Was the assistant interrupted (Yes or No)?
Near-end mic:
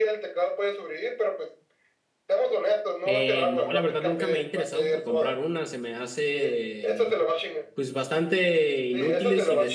Yes